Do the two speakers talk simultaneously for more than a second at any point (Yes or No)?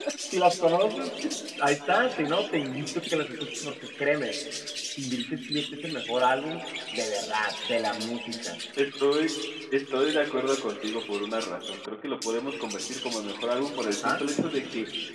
No